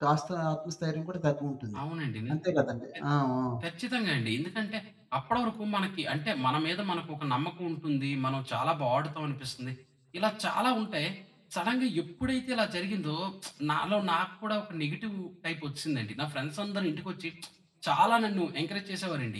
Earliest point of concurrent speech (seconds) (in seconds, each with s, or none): none